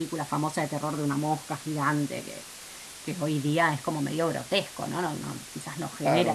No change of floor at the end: No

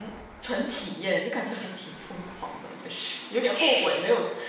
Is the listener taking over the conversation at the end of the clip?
No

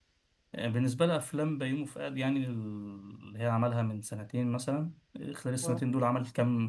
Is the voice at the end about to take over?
No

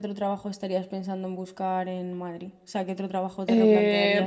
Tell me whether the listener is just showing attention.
No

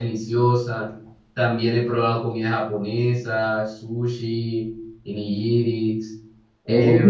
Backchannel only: No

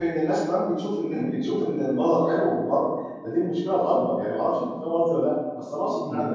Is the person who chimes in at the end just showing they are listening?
Yes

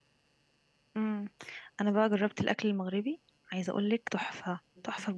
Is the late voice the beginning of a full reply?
Yes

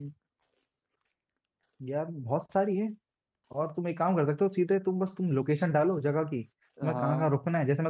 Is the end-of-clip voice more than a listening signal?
No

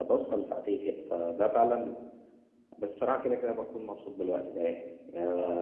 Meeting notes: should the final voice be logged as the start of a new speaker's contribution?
Yes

